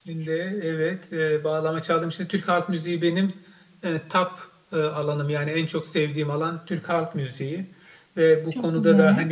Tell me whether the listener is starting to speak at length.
No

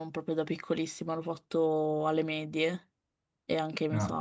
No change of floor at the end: Yes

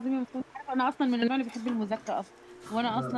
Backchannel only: Yes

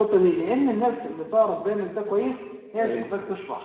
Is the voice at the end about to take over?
No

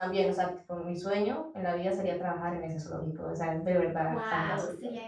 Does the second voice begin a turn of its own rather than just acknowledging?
Yes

